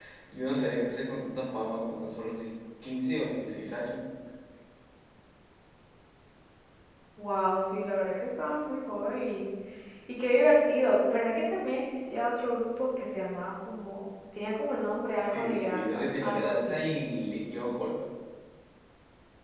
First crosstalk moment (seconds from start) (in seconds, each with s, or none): 15.3 s